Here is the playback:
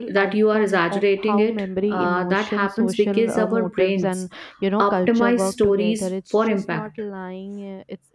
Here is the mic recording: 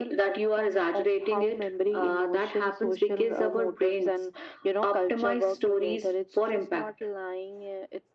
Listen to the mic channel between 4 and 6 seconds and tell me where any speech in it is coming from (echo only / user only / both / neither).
echo only